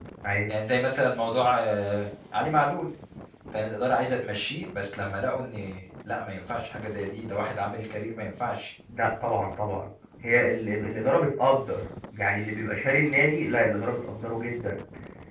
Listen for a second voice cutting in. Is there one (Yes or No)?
No